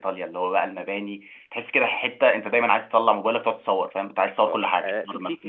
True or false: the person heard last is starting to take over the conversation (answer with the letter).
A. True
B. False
A